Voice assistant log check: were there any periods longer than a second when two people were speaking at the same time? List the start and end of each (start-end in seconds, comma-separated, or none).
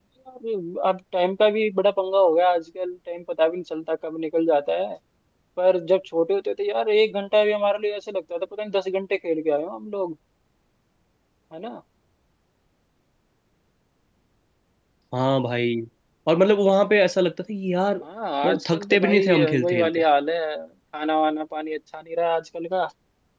18.4-19.9